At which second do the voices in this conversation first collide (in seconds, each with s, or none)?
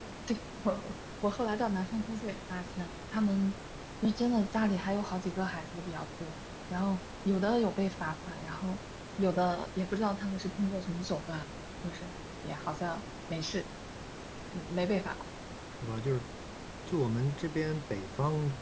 none